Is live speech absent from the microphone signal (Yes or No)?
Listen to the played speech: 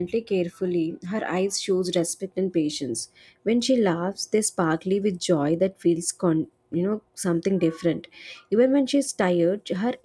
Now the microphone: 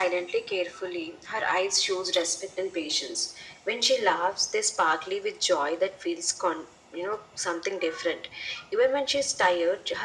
Yes